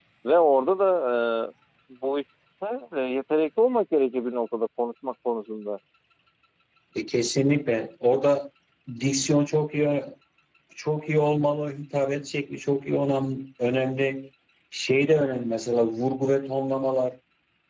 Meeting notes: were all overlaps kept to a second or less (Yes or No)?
Yes